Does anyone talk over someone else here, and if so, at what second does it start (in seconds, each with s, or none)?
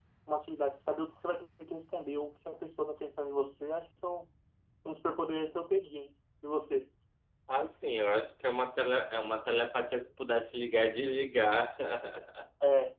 none